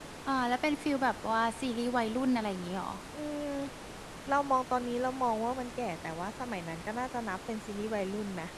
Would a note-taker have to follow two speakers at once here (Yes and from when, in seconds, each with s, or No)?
No